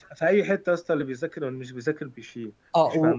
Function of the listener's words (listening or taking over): taking over